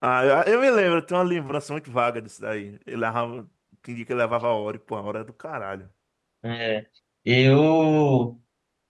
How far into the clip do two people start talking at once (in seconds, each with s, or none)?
none